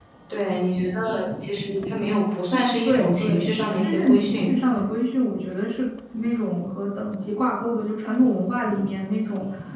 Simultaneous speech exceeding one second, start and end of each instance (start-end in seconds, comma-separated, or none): 2.8-4.5